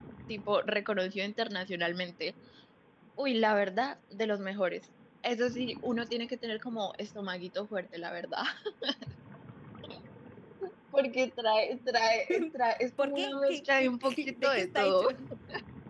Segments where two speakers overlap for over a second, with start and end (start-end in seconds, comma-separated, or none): 13.0-15.1